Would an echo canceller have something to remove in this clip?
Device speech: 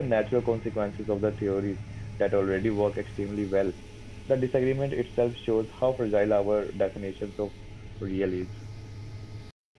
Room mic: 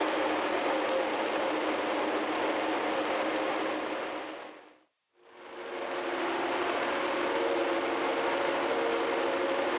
No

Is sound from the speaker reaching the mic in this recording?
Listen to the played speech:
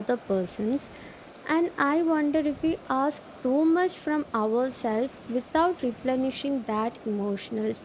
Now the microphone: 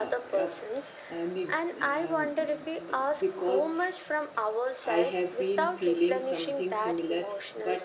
Yes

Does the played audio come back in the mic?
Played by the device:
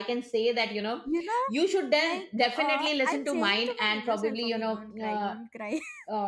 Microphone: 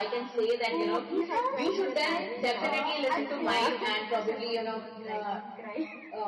Yes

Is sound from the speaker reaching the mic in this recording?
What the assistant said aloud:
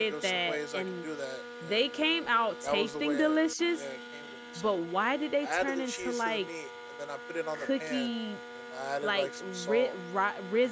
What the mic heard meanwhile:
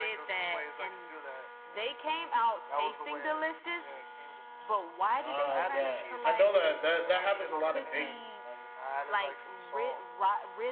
Yes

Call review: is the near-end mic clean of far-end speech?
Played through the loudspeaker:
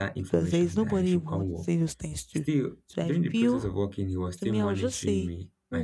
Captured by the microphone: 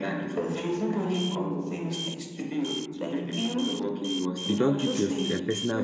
No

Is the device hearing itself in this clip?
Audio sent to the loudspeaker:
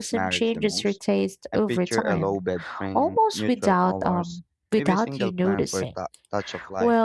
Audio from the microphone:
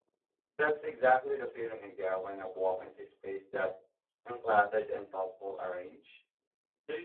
No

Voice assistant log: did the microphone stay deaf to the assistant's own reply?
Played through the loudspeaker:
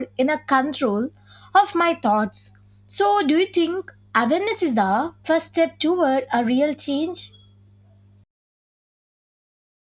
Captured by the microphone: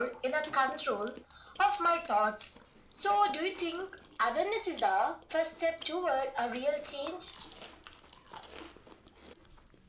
No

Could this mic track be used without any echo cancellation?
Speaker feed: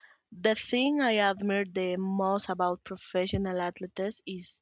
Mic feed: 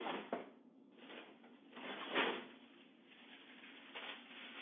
Yes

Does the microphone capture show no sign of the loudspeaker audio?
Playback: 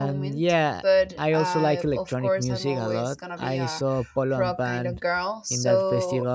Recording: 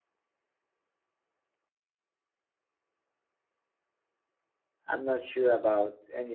Yes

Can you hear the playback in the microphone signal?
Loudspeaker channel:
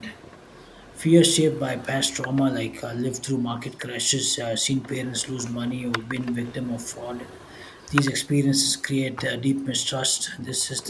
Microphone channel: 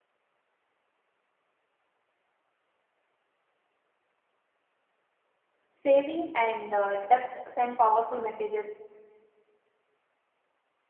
No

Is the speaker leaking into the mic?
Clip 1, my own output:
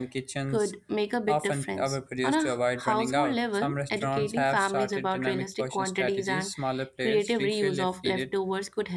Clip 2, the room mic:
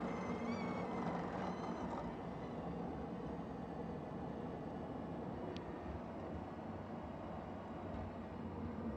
No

